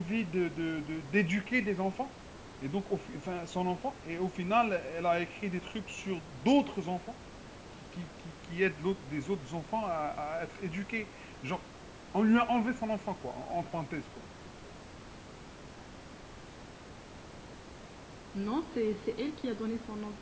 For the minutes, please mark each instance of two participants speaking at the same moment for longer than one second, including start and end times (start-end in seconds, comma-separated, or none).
none